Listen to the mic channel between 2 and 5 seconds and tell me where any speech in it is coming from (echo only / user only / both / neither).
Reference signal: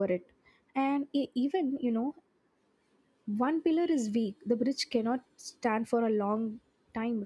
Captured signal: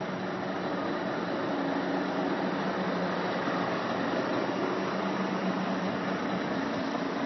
neither